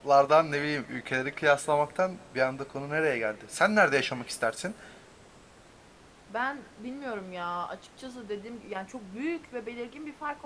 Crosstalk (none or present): none